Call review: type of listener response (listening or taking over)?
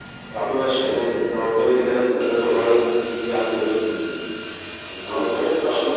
taking over